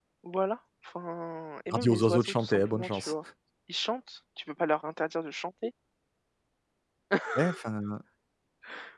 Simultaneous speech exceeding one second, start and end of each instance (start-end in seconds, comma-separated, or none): 1.7-3.1